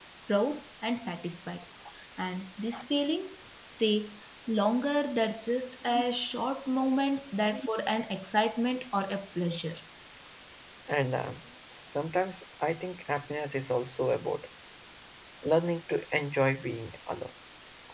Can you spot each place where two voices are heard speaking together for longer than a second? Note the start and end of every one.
none

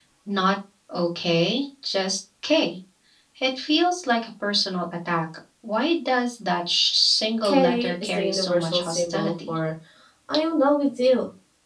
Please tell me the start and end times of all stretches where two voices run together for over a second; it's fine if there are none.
7.4-9.6

